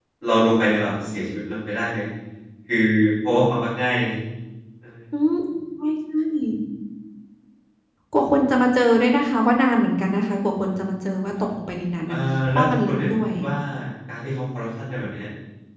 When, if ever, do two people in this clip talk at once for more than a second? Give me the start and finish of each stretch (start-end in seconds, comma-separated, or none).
12.1-13.3